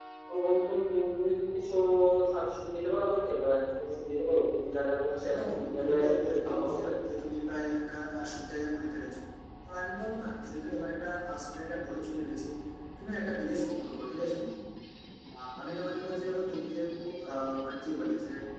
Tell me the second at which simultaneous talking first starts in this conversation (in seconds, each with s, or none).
5.1 s